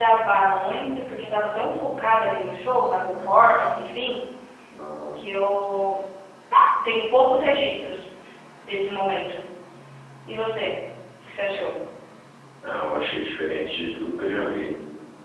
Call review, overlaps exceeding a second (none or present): none